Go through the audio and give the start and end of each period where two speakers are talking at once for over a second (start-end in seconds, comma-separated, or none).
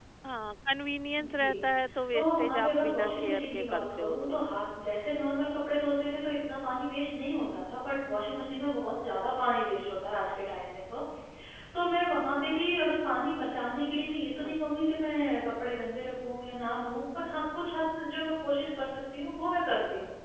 2.1-4.5